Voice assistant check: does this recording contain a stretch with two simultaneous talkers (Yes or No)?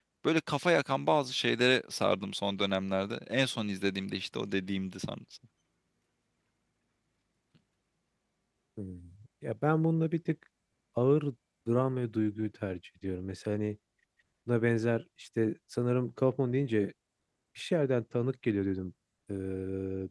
No